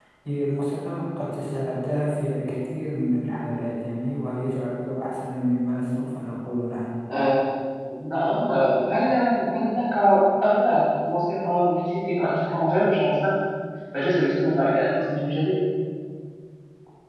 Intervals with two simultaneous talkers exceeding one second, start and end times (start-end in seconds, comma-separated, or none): none